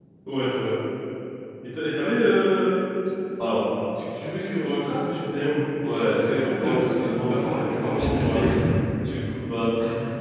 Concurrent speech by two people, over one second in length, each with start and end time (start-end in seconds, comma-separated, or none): 6.2-8.6